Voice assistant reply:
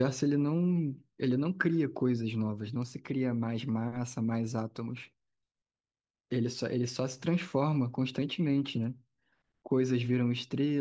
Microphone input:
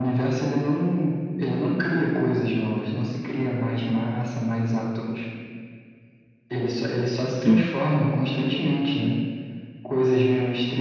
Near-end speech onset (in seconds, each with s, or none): 7.4 s